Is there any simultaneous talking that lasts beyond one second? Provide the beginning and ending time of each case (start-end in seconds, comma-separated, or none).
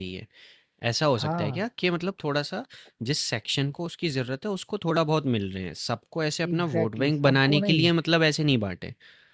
6.5-7.9